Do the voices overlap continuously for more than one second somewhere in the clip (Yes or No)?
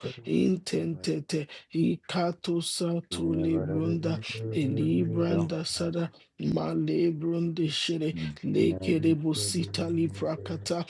Yes